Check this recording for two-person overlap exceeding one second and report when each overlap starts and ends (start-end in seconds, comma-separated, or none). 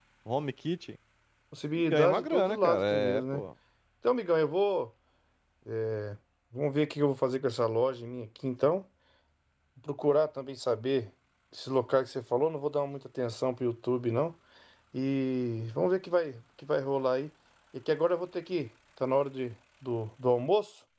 1.9-3.4